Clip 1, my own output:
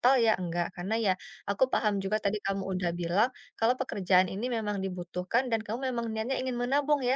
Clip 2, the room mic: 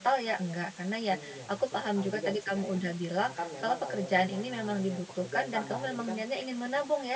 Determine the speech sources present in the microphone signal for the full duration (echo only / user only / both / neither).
both